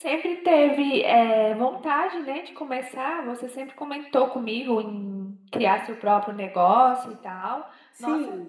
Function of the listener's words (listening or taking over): taking over